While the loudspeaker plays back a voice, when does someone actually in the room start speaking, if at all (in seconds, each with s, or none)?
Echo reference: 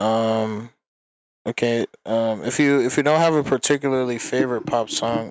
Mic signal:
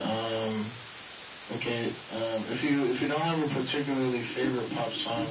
none